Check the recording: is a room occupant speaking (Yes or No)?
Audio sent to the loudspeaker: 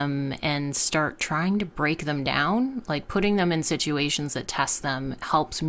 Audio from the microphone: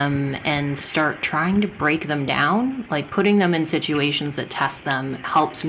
No